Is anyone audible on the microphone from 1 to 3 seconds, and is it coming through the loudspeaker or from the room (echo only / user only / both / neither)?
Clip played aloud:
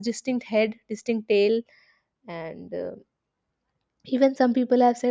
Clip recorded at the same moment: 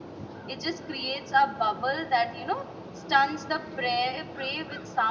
user only